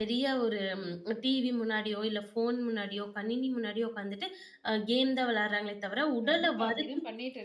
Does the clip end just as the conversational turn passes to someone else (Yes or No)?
Yes